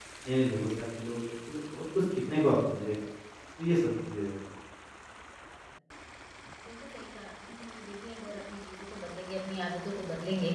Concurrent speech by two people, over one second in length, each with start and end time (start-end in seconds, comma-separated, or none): none